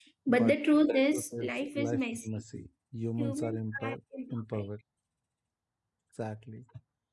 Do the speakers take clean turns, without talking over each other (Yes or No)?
No